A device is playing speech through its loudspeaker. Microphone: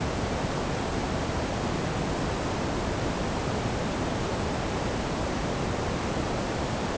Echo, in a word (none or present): none